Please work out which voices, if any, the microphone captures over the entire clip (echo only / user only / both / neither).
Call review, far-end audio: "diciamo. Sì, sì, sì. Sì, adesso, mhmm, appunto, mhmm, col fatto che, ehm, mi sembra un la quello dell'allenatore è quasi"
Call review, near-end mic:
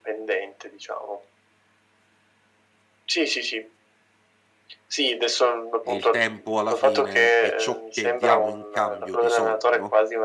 both